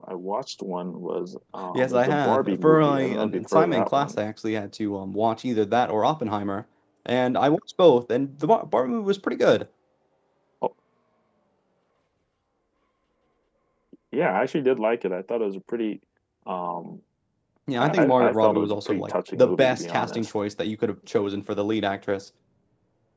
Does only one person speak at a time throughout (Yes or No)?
No